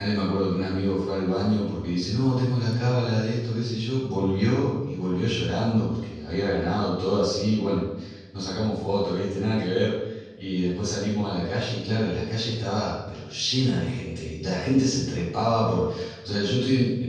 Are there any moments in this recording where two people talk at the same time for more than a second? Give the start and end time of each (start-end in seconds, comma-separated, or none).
none